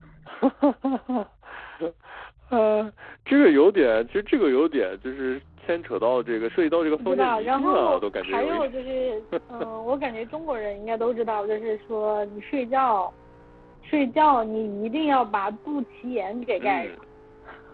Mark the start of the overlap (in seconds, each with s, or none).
7.0 s